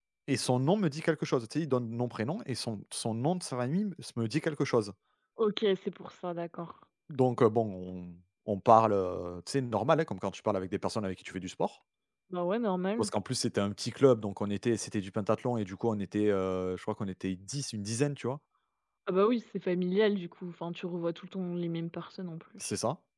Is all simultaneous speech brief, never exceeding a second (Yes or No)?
Yes